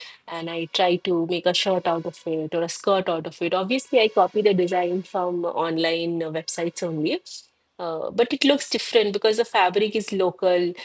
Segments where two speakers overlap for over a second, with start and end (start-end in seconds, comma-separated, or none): none